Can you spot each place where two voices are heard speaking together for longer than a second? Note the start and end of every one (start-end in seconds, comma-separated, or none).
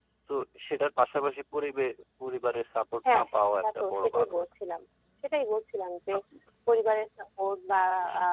3.0-4.3